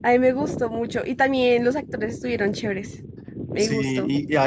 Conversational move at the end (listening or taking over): taking over